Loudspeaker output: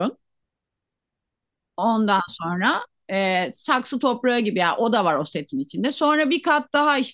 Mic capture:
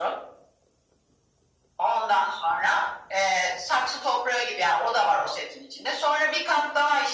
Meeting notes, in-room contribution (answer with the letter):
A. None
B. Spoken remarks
A